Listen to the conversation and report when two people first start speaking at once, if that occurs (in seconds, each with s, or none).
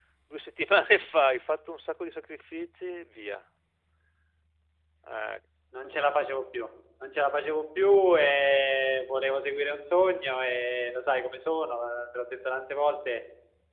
none